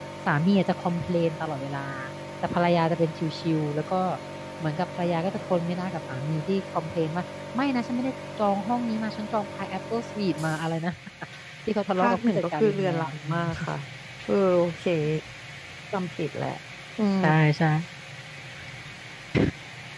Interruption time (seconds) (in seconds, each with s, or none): 12.0 s